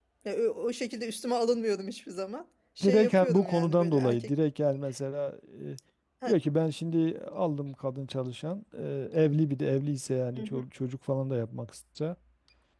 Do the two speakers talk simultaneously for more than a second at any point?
Yes, from 2.8 s

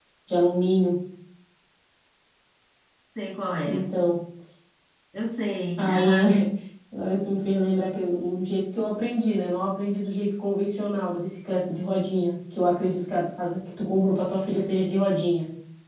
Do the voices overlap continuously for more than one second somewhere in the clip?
No

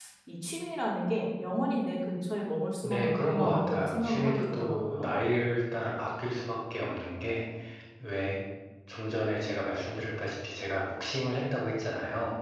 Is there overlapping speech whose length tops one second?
Yes, from 2.8 s

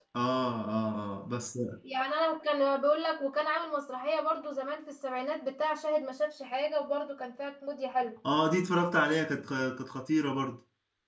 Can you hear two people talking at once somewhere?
No

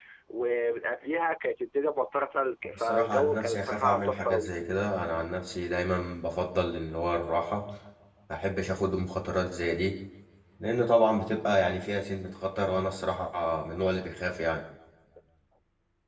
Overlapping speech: Yes, from 2.6 s

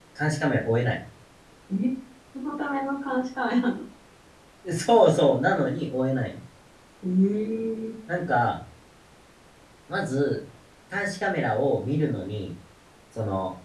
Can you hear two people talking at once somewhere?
No

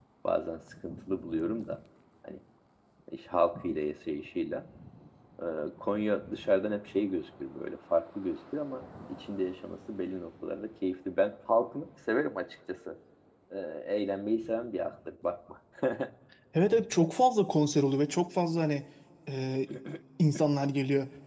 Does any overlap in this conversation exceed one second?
No

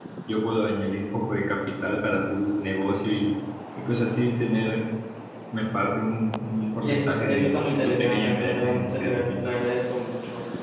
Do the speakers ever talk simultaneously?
Yes, from 6.8 s

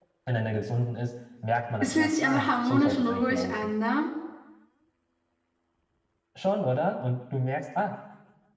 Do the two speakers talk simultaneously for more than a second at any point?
Yes, from 1.8 s

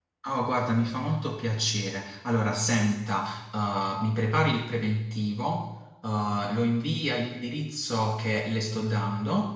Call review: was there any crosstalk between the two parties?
No

